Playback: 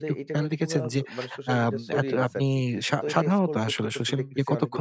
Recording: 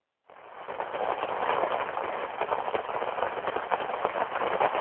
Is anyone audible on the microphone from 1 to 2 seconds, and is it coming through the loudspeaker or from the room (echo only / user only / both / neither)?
neither